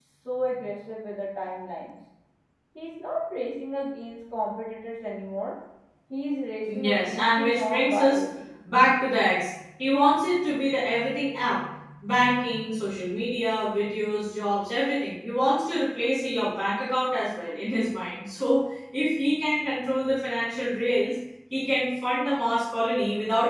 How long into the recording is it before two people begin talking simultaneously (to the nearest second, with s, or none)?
7 s